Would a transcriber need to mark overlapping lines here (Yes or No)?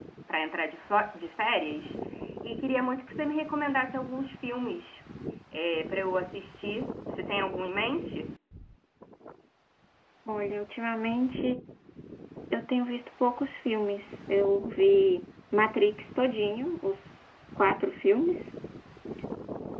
No